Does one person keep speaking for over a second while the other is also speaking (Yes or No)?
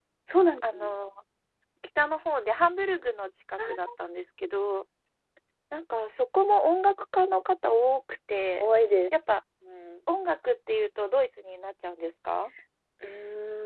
No